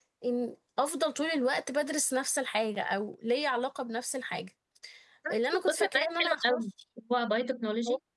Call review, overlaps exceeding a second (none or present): present